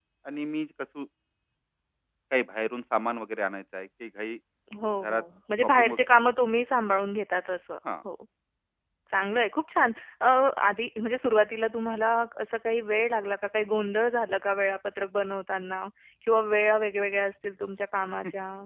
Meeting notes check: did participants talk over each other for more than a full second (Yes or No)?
No